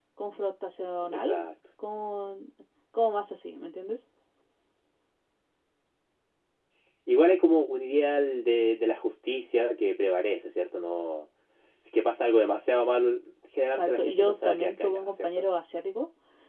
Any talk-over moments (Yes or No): Yes